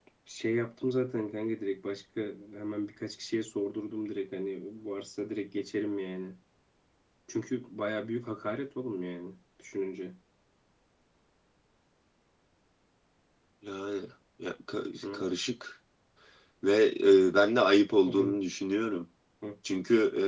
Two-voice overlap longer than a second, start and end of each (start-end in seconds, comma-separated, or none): none